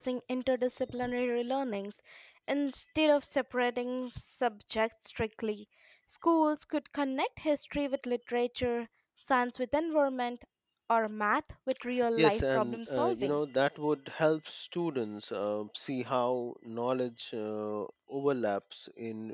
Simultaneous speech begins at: 12 s

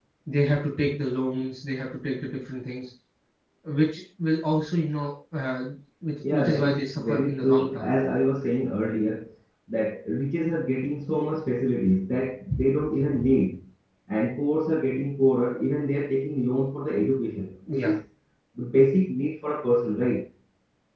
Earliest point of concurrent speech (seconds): 6 s

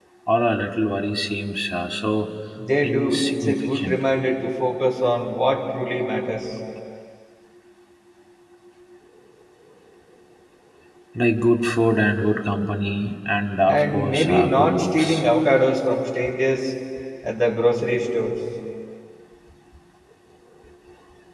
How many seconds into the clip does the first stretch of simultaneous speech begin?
3 s

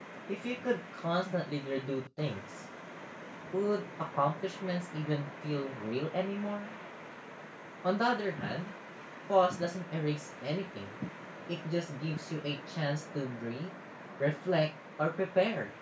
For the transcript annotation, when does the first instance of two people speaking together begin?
none

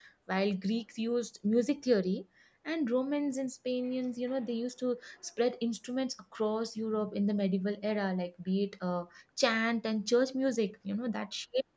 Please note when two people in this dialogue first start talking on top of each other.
none

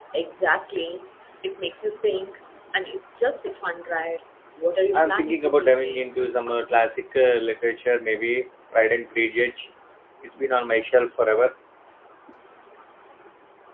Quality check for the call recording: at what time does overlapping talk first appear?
5 s

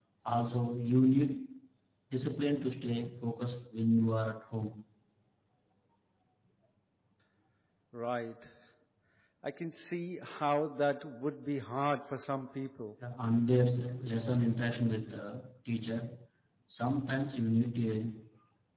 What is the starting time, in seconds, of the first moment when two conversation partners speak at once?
none

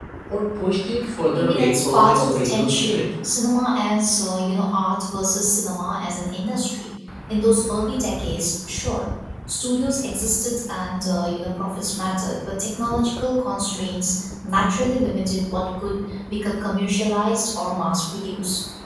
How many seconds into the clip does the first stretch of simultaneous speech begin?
1 s

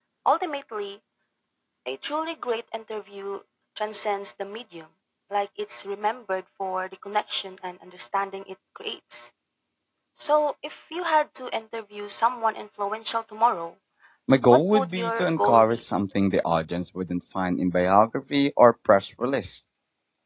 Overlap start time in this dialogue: 15 s

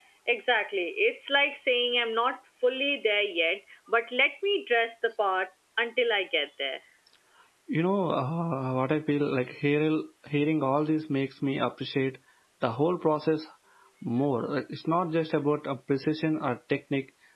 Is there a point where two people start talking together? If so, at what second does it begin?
none

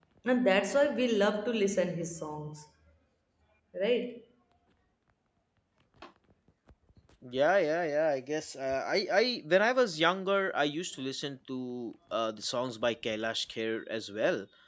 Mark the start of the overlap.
none

